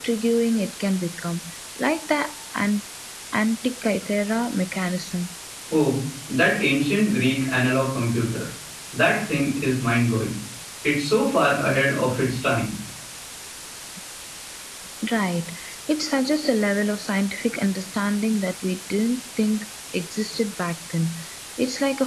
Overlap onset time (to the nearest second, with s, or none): none